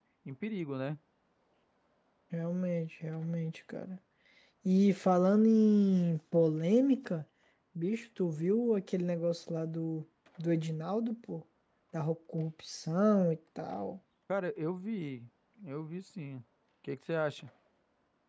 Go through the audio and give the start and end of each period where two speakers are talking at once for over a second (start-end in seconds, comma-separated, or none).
none